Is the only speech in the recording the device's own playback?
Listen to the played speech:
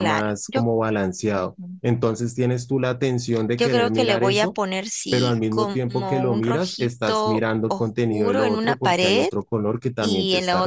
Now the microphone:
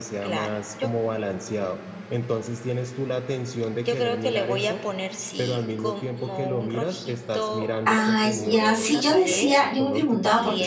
No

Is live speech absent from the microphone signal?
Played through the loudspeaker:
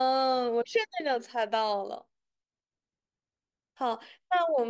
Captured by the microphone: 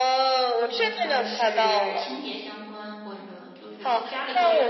No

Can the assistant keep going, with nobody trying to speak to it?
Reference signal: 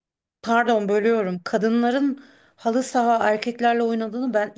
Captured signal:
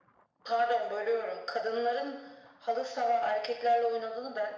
Yes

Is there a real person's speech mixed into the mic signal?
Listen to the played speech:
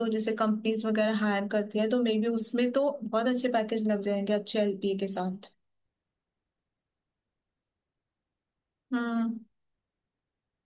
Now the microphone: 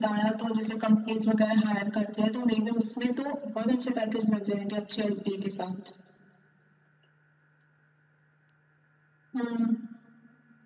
No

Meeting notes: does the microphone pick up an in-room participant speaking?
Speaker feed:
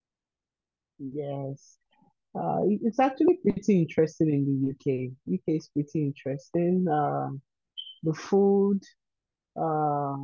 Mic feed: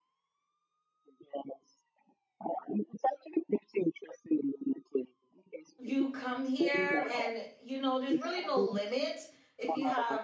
Yes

